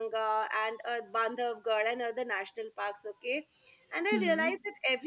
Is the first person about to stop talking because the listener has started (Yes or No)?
No